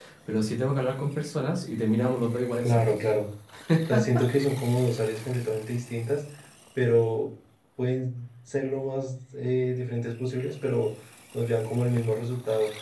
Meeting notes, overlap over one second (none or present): none